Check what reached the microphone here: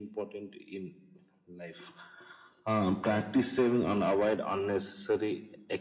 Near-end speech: none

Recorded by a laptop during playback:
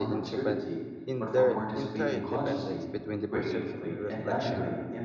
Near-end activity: present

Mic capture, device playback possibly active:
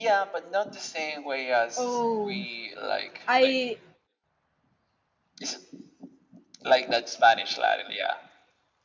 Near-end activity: present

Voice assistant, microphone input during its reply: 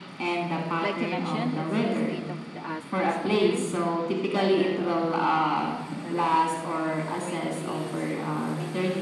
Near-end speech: present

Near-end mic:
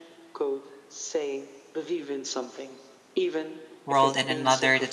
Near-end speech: present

